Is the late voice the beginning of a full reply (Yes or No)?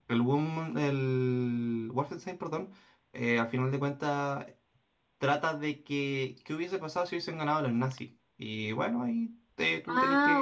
Yes